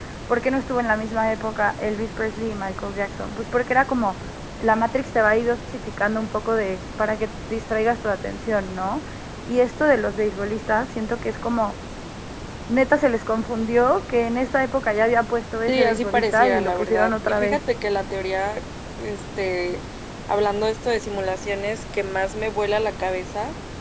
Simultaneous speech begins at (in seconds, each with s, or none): 15.7 s